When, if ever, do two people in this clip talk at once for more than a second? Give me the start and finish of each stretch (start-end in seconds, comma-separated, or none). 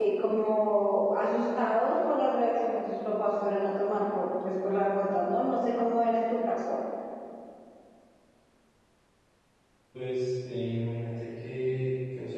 none